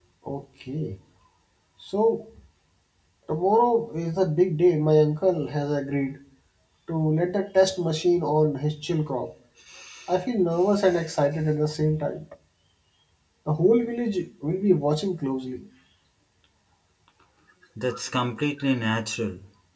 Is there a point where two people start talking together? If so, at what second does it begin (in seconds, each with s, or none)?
none